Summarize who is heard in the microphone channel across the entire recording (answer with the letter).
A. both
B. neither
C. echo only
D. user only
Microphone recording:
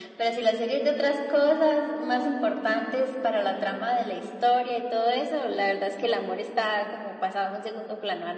C